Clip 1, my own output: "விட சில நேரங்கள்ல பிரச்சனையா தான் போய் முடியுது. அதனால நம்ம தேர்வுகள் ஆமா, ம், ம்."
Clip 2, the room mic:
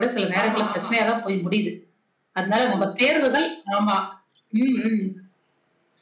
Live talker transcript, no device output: ஆமா, ஆமா.

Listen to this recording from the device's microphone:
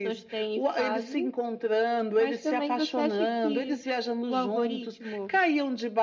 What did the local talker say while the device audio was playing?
none

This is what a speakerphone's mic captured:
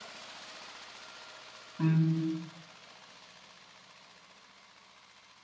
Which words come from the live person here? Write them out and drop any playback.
హ్మ్.

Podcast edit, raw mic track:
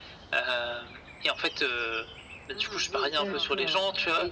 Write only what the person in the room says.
D'accord, heu

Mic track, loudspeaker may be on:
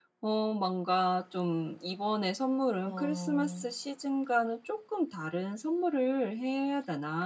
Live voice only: 어.

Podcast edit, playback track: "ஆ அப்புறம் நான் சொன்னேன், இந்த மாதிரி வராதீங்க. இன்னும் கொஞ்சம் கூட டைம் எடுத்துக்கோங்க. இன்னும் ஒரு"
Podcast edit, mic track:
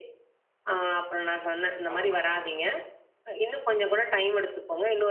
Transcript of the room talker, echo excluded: ஆமாங்க.

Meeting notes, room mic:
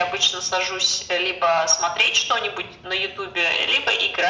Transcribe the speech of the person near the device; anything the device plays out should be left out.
none

